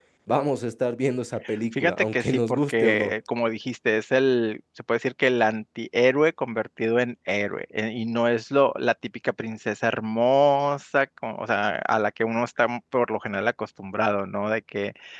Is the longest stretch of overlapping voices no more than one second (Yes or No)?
No